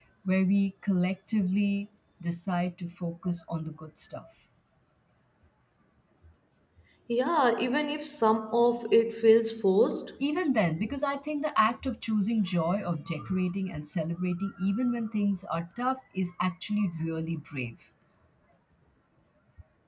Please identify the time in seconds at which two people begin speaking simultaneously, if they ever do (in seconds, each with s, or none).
none